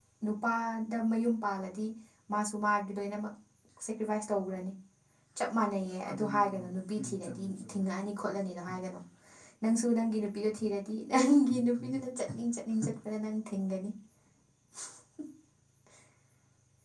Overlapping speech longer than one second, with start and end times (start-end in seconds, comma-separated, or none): 6.1-7.8